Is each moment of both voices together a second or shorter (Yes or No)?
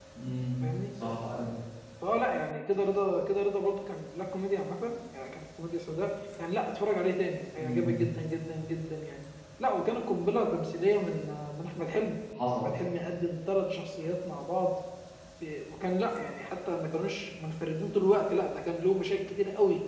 Yes